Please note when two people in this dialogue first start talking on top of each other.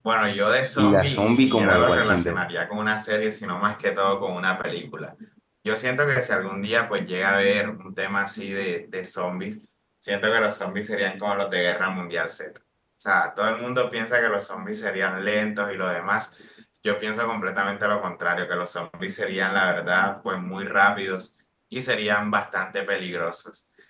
0.8 s

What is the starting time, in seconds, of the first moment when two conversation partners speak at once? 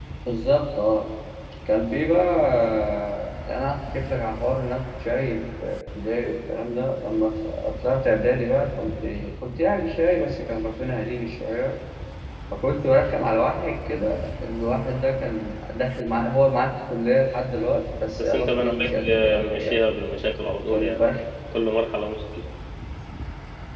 18.2 s

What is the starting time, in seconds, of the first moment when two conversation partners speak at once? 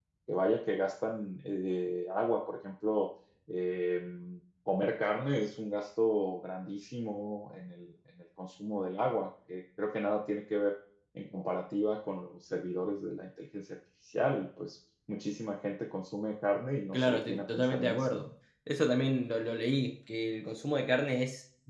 16.9 s

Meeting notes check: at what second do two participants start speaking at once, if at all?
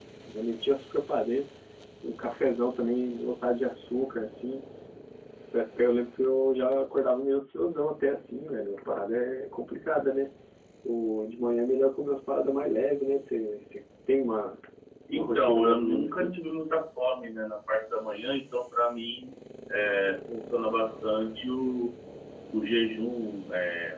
15.1 s

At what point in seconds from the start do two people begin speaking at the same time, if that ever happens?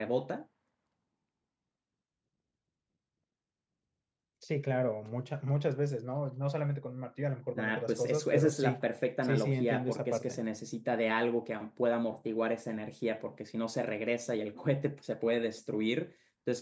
7.6 s

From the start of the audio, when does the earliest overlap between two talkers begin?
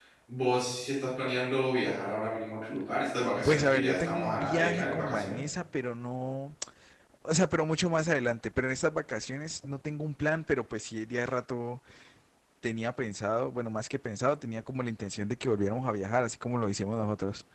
3.5 s

